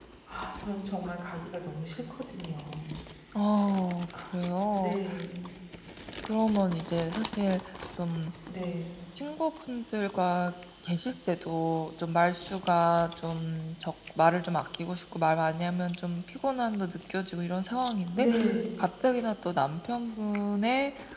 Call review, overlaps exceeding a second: none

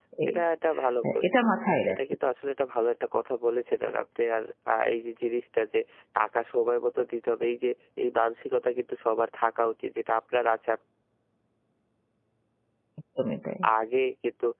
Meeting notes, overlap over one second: none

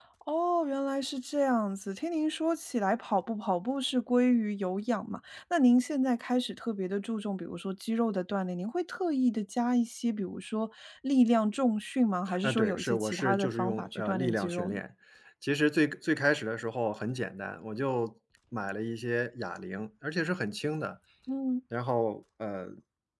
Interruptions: present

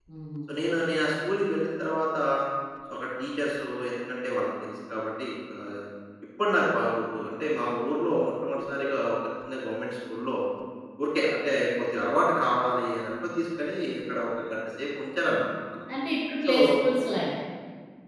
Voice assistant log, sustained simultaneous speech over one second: none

